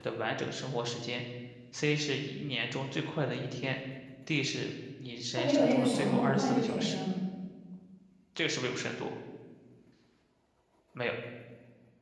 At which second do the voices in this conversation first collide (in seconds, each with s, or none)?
5.4 s